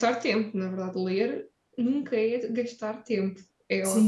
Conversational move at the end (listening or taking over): taking over